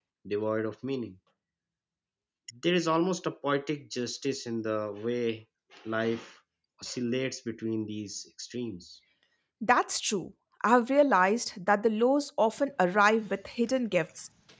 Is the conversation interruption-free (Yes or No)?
Yes